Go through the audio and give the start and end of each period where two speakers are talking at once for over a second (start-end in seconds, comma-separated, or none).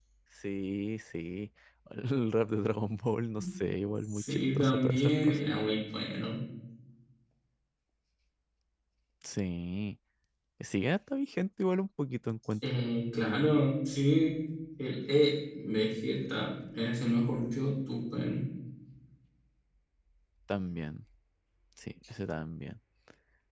4.0-5.4